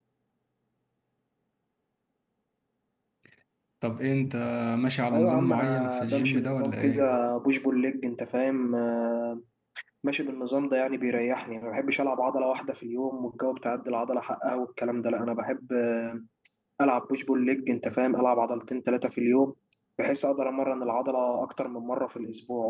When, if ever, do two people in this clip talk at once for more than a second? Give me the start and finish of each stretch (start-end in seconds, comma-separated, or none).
5.1-7.0